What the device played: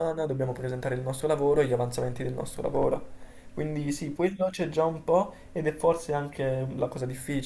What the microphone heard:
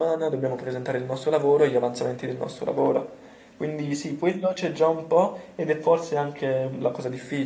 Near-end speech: none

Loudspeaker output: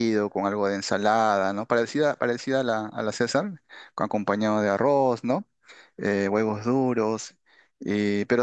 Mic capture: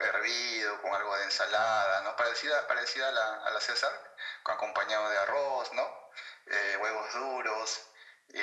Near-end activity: none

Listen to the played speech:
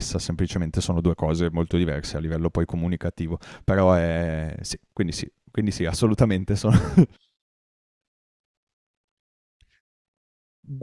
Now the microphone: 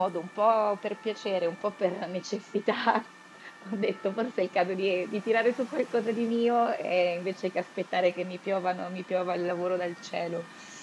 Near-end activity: present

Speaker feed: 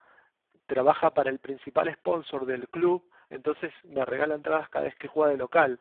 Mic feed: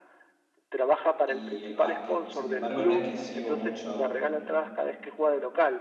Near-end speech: present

